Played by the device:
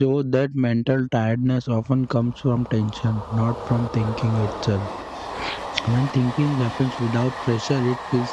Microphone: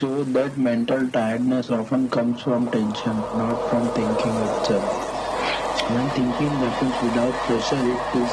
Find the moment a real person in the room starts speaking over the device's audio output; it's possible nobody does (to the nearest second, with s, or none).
none